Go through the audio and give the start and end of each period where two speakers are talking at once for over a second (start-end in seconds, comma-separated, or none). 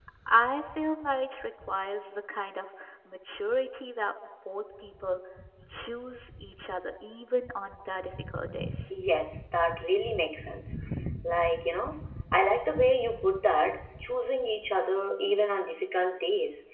none